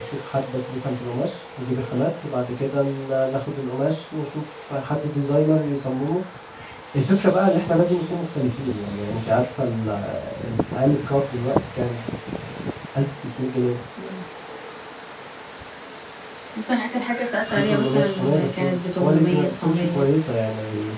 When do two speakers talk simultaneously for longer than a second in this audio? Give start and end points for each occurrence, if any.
17.5-20.0

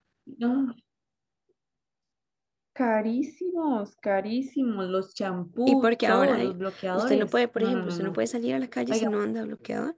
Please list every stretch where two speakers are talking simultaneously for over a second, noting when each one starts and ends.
5.7-8.2

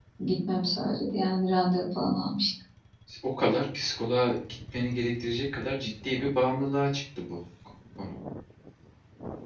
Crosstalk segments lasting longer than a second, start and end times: none

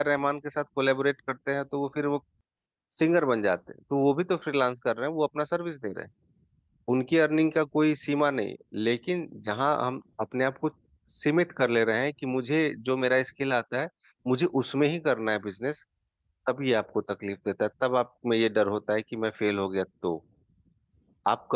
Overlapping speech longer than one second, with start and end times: none

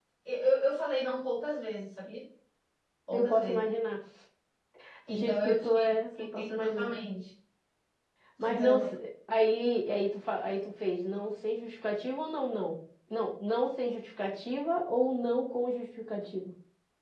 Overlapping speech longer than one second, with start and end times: 5.1-7.0

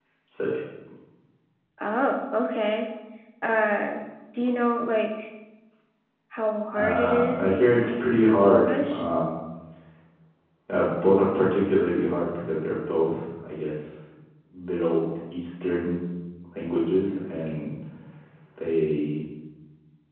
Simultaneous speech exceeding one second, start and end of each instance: 6.8-9.0

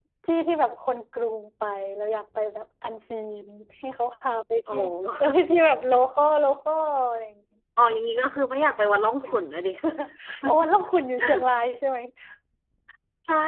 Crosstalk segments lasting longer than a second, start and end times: none

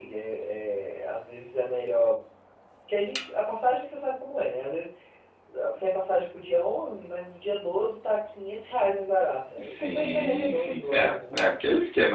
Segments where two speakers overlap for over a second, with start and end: 9.6-10.9

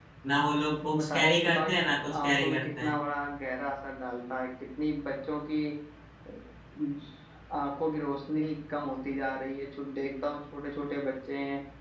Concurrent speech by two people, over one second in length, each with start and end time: 1.0-2.9

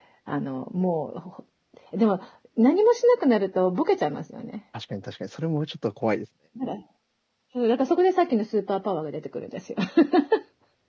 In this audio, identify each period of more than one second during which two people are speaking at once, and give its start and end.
none

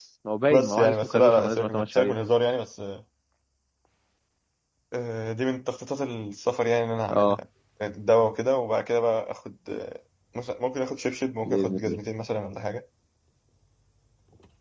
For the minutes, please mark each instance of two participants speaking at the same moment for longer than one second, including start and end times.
0.5-2.1

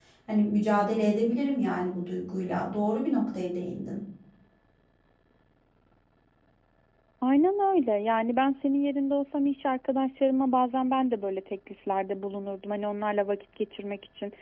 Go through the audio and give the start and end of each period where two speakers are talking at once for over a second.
none

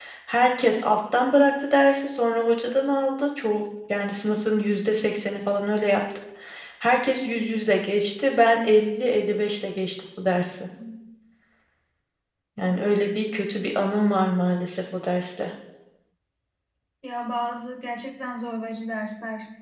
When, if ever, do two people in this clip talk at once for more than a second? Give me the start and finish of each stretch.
none

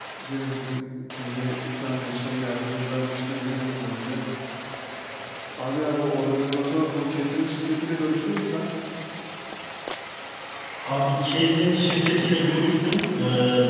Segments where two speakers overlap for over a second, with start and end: none

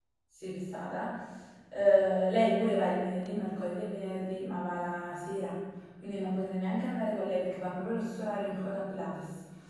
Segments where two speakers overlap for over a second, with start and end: none

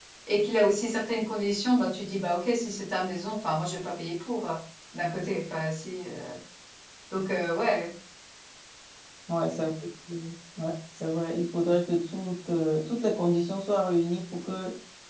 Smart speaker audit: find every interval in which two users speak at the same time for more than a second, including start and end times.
none

